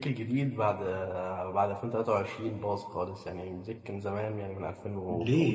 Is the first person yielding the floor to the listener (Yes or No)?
Yes